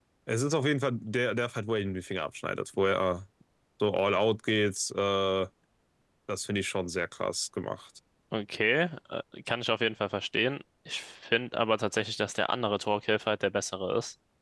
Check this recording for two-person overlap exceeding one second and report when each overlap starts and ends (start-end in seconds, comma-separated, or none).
none